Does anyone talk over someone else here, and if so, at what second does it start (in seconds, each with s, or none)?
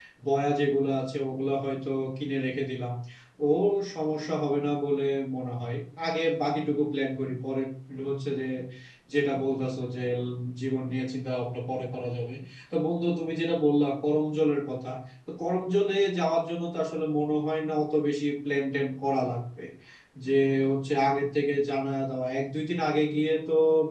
none